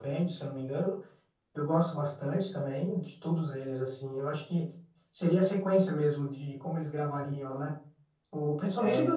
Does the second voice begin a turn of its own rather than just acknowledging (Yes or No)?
No